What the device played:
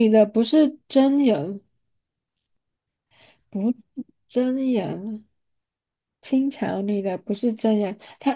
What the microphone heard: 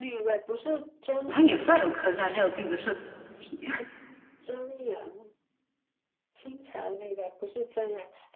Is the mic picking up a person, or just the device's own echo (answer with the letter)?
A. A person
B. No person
A